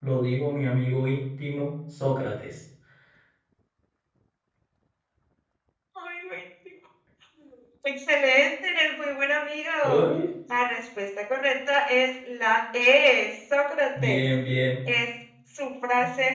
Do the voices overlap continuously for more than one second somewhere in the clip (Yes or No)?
No